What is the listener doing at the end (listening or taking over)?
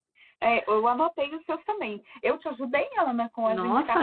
taking over